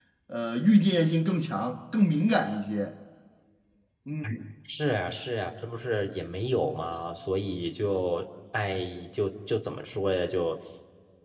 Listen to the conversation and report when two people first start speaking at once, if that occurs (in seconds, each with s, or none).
none